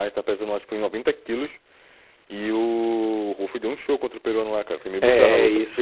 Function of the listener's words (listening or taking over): taking over